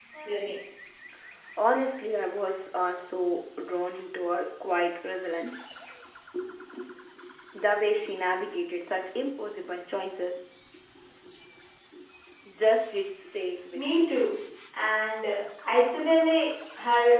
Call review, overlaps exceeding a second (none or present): none